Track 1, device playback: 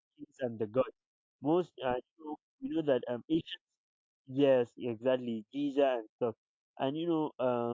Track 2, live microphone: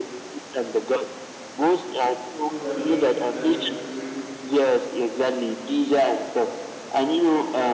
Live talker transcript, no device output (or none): So we are not the only people that eat ewedu.